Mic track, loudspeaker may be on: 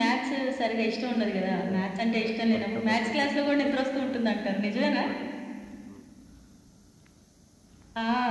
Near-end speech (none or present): present